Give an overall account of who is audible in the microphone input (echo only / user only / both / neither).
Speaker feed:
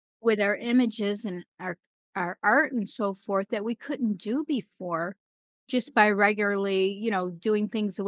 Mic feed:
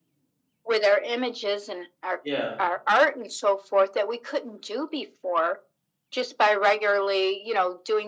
both